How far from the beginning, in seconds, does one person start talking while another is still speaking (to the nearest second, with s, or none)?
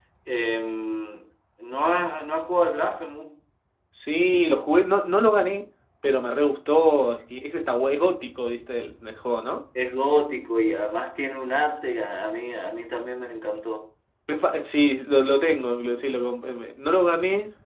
none